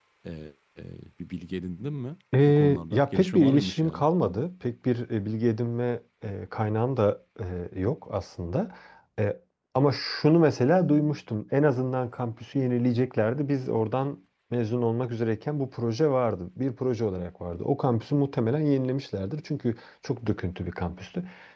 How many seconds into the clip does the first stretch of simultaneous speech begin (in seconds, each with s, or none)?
2.3 s